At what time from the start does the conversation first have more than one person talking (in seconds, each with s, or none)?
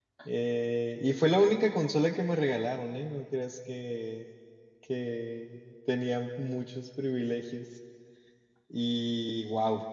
none